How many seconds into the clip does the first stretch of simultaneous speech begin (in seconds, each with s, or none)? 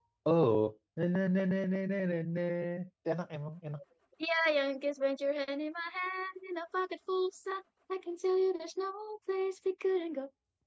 none